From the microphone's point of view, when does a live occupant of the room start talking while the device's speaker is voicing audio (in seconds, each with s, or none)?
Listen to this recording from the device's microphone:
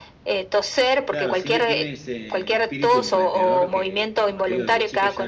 1.1 s